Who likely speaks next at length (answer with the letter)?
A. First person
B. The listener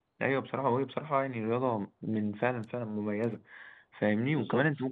A